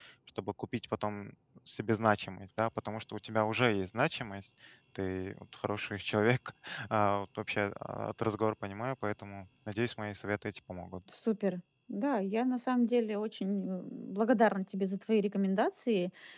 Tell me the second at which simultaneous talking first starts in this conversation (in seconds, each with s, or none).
none